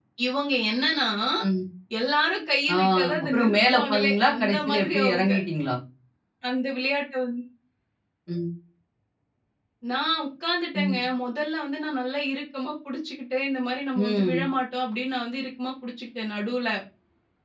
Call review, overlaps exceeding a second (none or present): present